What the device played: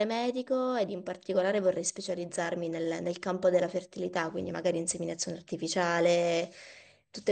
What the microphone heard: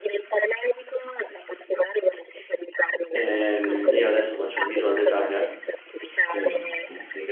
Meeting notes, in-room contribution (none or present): present